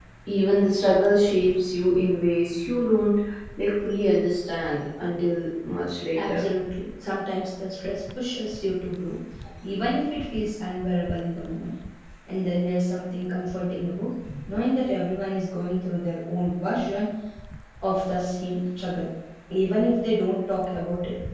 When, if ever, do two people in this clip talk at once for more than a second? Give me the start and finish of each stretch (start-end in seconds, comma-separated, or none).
none